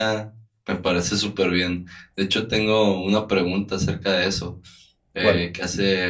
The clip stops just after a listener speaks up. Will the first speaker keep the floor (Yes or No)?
Yes